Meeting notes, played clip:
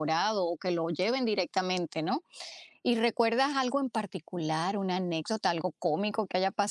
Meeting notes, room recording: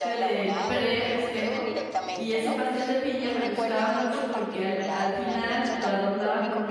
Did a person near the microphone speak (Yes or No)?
Yes